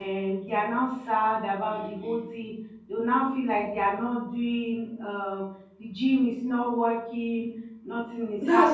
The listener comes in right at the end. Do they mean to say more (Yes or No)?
Yes